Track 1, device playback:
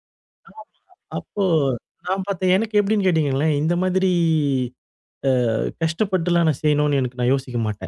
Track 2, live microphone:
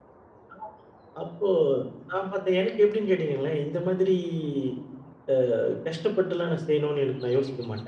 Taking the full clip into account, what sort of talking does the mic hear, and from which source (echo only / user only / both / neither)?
echo only